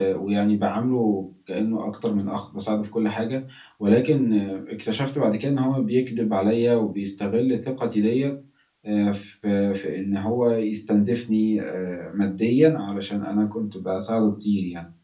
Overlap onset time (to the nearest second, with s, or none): none